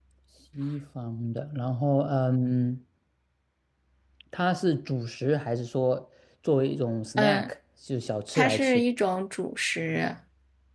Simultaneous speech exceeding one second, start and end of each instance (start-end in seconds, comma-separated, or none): none